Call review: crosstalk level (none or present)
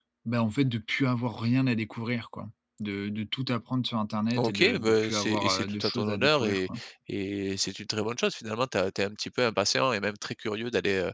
present